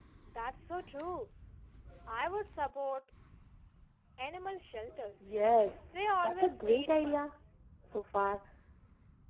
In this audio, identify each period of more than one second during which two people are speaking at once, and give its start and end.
5.9-7.3

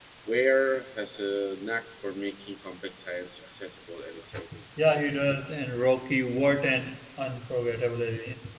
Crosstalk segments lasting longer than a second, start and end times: none

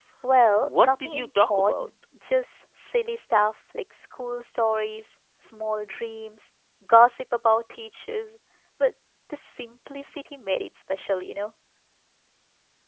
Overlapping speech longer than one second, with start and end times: 0.6-1.9

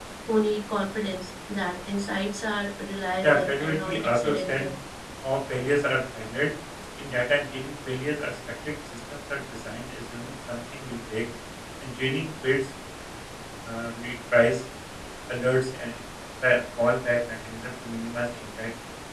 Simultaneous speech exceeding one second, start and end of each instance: 3.2-4.7

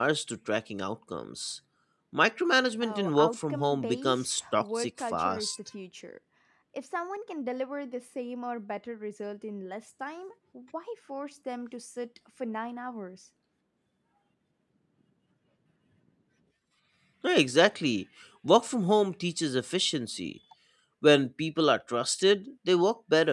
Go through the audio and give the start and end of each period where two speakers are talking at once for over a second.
2.8-5.5

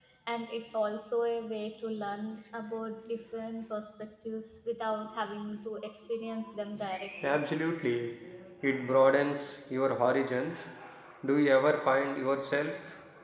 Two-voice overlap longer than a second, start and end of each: none

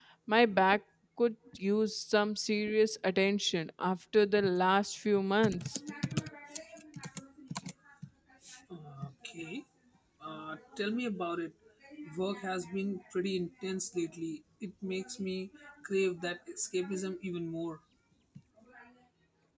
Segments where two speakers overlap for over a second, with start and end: none

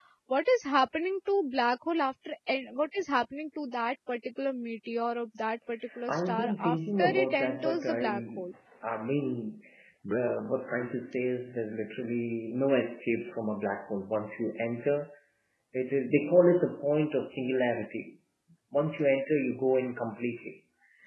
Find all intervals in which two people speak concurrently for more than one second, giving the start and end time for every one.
6.1-8.4

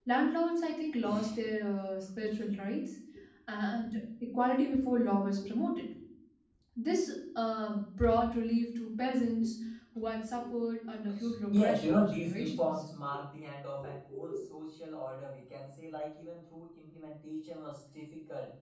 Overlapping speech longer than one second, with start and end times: 11.5-12.7

